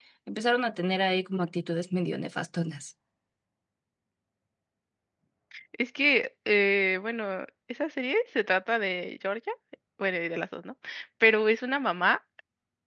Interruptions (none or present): none